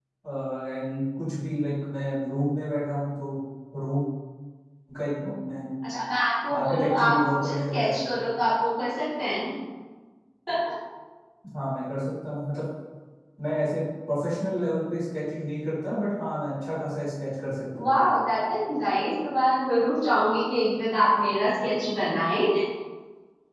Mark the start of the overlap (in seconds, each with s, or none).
6.6 s